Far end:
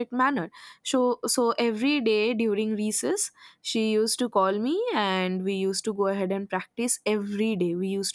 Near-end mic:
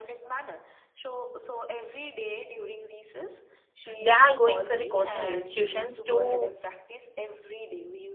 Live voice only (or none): they are going for the coaching institutions to